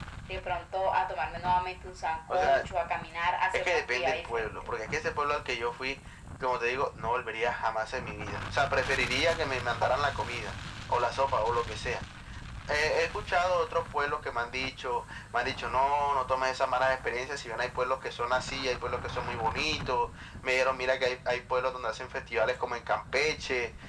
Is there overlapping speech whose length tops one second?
Yes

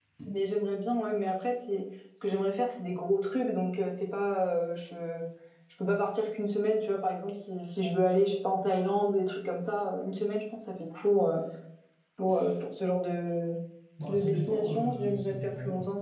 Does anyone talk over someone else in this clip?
Yes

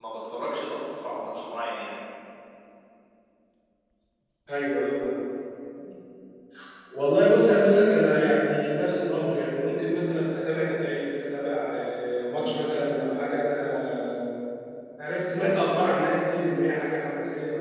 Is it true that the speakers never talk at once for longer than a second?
Yes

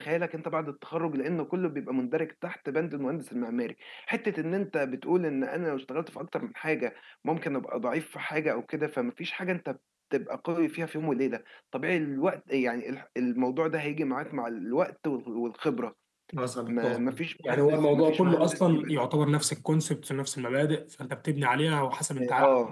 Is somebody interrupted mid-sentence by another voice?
Yes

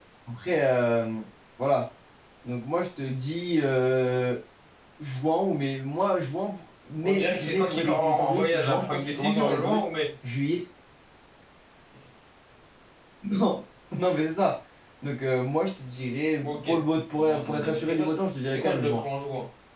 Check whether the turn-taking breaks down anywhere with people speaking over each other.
Yes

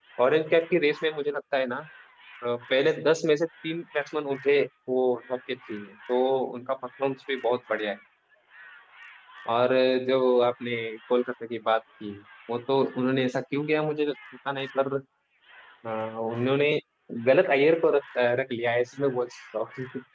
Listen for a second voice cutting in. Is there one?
No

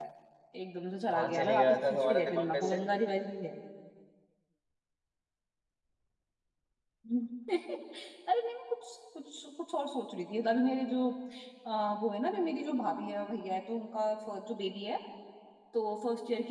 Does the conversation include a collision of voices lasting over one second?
Yes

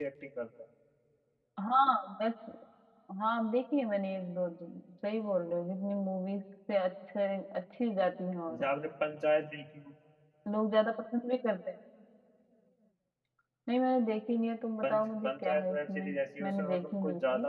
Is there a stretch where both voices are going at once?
Yes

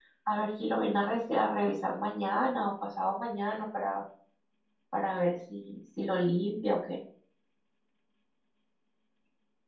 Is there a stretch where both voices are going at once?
No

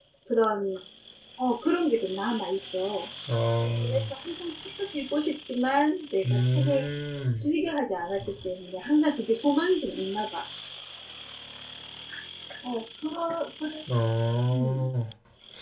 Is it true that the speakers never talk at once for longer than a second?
Yes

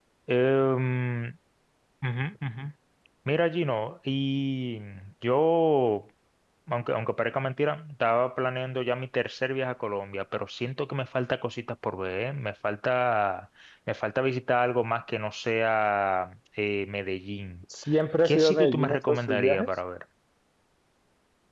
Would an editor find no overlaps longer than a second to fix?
No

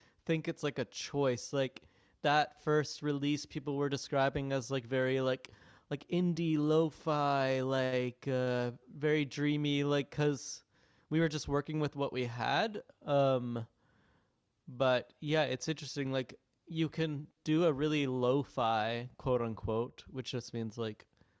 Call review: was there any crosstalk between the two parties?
No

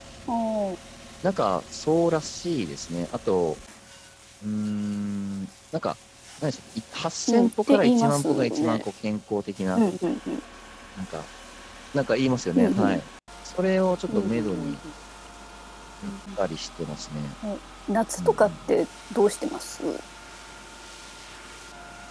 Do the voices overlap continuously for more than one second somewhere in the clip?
Yes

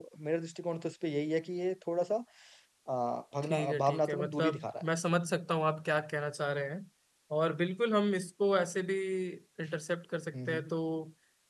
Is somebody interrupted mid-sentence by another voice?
Yes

